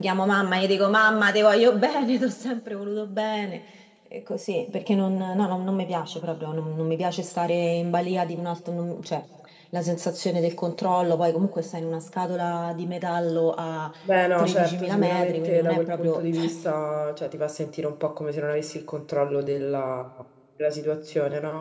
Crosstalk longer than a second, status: present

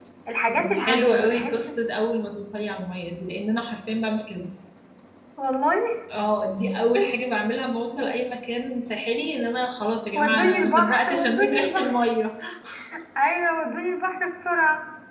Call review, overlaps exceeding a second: present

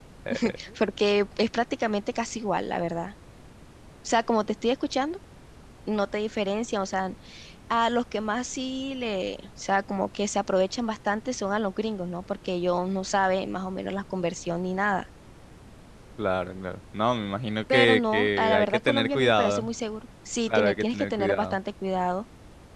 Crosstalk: present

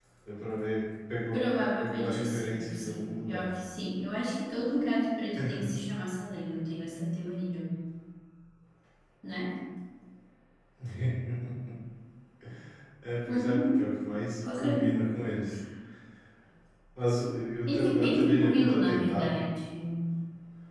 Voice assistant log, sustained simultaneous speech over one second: present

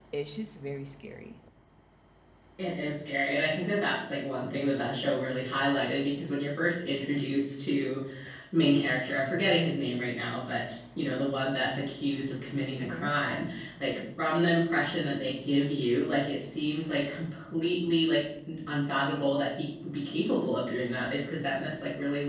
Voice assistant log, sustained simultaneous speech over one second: none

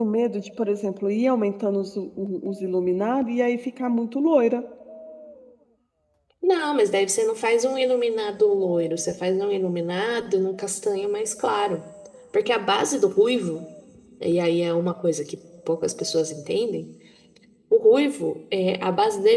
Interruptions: none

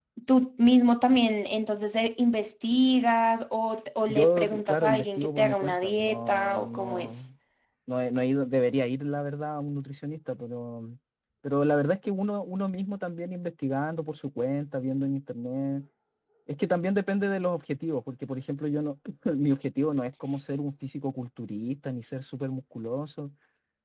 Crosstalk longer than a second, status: present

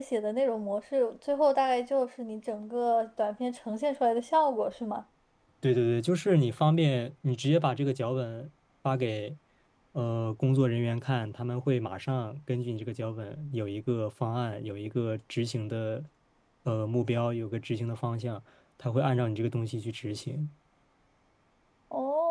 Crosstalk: none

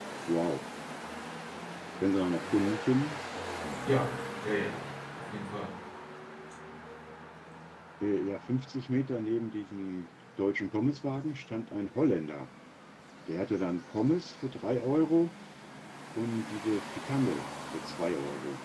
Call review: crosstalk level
none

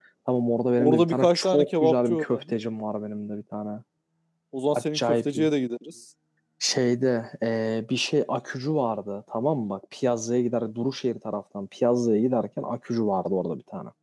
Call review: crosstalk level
present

